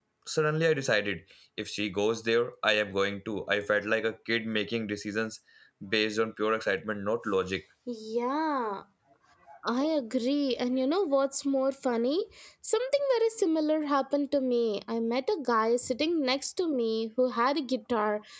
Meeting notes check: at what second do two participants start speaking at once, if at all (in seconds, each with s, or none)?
none